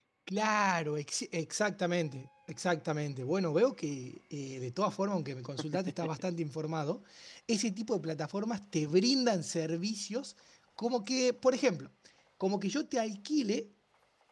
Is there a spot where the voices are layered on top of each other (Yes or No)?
No